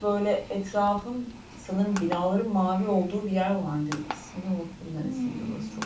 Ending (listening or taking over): taking over